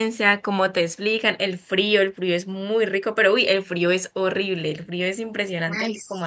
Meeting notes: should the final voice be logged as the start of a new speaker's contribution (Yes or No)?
Yes